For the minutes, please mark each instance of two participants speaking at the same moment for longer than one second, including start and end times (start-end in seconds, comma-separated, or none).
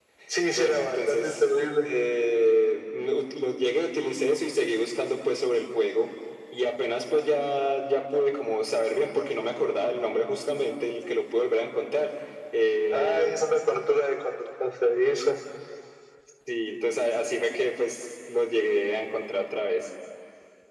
0.5-1.8